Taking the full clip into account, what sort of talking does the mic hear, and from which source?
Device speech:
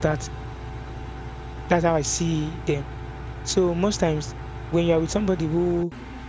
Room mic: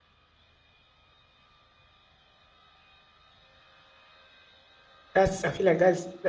user only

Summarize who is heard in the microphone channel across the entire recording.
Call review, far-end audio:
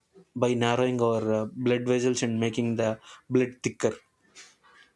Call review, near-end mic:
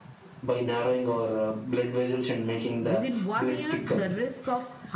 both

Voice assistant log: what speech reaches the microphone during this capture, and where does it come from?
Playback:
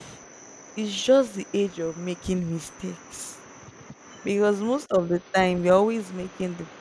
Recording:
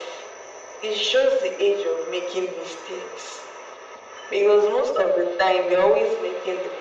echo only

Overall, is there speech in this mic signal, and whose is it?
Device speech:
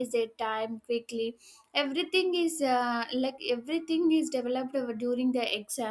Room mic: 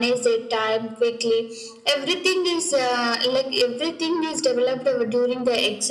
echo only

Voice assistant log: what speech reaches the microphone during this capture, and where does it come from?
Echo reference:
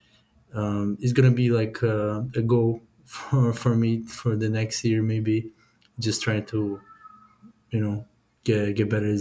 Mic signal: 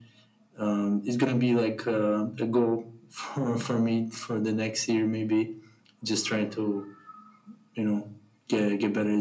echo only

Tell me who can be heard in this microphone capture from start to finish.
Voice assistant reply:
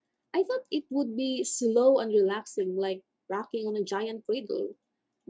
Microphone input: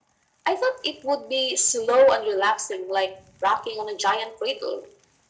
echo only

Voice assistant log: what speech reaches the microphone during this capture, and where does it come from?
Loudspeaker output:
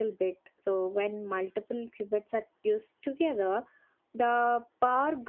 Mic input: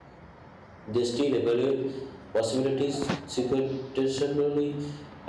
user only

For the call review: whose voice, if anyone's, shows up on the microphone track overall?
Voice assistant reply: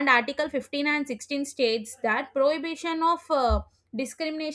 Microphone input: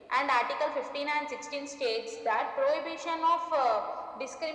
echo only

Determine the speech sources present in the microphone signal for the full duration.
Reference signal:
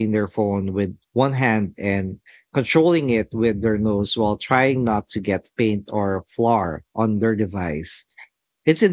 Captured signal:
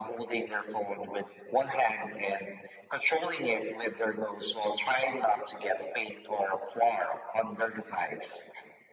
echo only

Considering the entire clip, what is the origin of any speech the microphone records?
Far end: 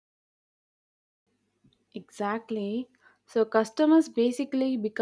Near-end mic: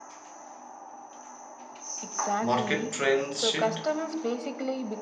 both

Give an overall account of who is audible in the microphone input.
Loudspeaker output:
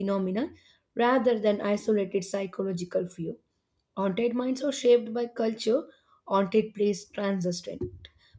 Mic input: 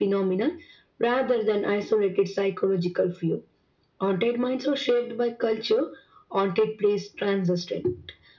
echo only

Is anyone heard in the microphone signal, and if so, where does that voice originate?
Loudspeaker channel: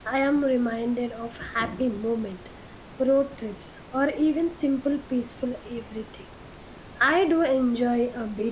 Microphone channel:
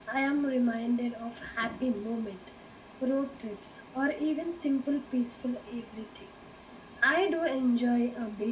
echo only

